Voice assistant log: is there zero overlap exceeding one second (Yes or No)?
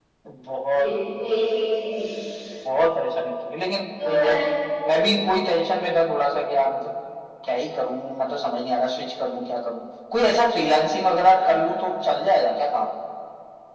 Yes